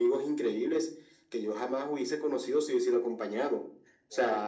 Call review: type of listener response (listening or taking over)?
listening